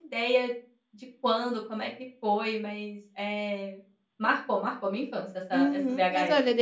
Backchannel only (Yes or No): No